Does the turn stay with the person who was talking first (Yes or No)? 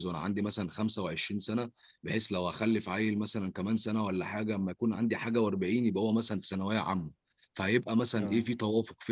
Yes